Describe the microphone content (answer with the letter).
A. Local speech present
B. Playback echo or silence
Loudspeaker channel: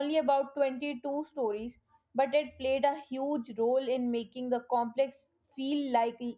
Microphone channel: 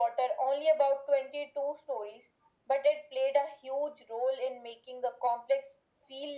B